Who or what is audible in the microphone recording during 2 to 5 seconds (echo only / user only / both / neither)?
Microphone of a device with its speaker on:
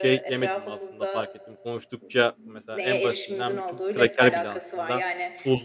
both